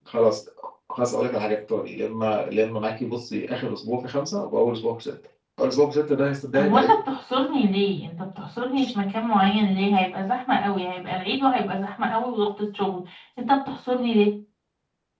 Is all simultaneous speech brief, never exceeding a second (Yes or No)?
Yes